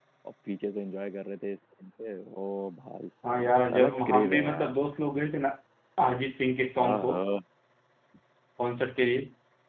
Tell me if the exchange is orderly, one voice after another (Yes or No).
No